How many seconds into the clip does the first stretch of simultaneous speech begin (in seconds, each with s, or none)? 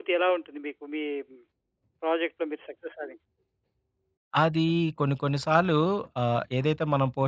none